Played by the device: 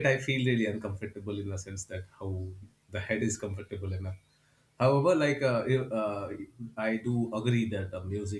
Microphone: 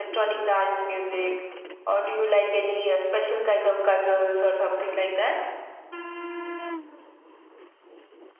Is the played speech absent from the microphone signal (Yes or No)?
Yes